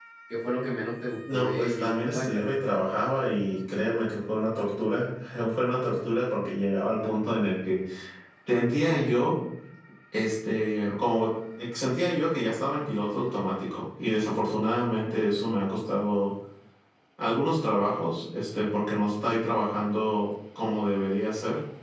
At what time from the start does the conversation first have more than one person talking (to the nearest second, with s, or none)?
1 s